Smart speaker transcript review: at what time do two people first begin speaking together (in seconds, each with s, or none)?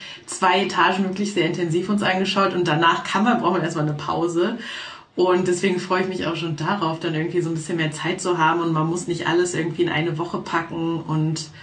none